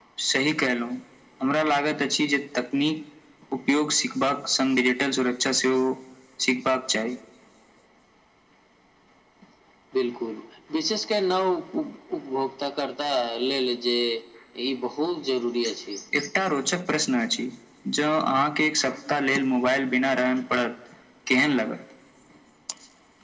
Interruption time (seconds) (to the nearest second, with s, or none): none